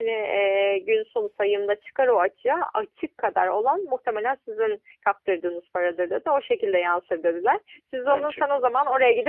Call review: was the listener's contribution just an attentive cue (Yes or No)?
Yes